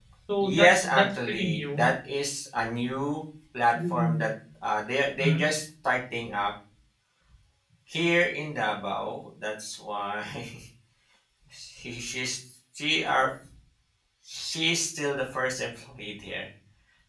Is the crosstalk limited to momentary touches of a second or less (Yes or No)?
No